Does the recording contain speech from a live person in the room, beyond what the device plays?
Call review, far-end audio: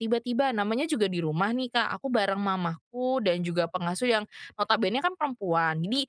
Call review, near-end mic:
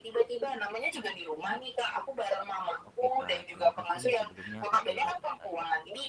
Yes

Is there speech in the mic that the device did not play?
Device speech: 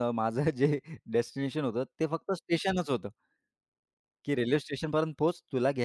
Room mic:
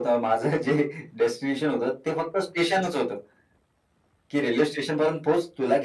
No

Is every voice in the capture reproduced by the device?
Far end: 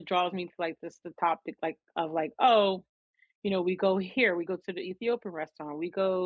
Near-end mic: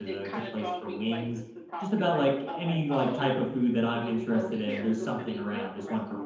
No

